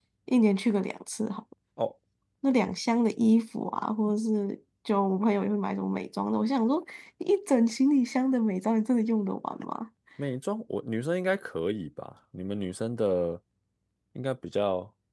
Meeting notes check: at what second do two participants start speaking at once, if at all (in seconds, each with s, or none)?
none